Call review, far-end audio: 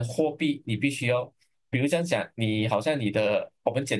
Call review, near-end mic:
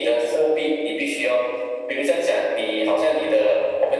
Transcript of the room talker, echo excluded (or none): none